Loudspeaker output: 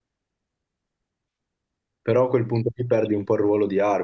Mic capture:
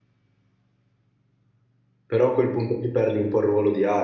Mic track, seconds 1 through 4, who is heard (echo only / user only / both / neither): echo only